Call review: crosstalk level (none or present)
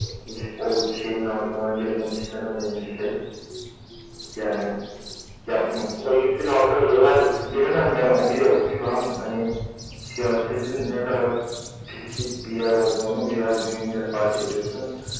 none